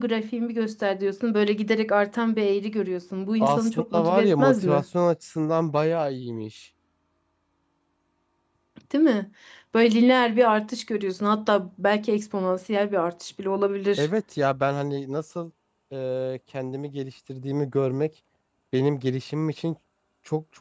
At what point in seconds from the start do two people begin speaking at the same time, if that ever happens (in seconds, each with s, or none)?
3.4 s